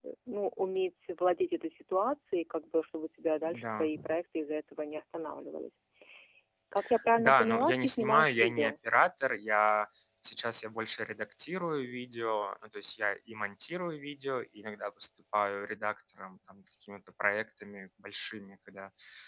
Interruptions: present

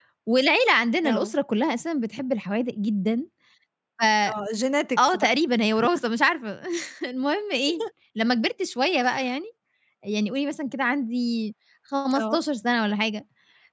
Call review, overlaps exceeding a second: none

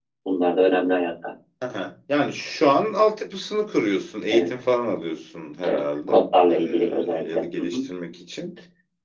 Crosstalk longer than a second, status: present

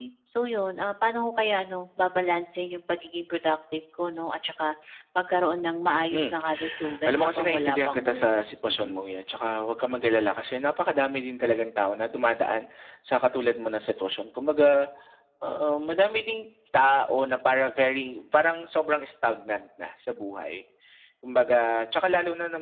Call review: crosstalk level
present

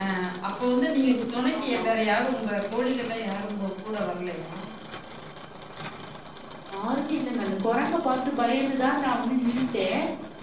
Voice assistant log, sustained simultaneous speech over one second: none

